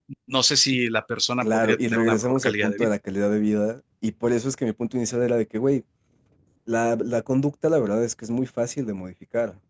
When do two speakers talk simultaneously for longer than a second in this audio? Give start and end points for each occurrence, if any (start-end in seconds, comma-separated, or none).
1.4-2.9